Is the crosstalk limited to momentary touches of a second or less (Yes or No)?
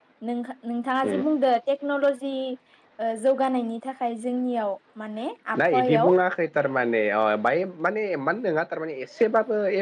Yes